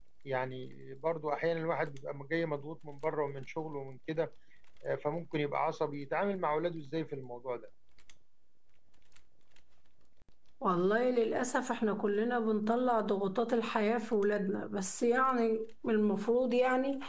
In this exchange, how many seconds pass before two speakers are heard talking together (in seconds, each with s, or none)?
none